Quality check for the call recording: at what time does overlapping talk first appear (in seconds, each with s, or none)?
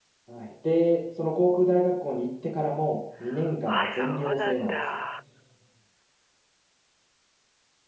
3.7 s